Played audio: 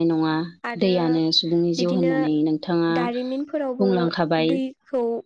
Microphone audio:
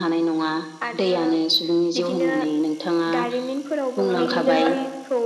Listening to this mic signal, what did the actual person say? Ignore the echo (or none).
बिदिनो